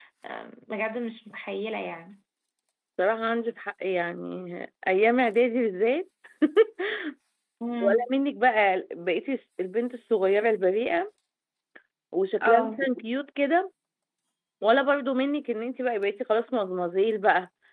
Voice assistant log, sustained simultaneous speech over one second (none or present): none